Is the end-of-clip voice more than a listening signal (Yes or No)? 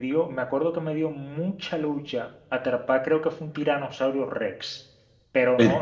No